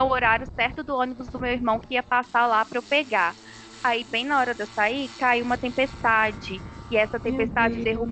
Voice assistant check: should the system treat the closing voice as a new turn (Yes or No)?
No